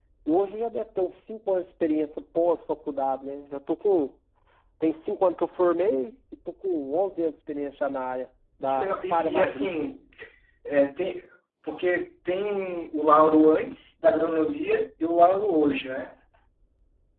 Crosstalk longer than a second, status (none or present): present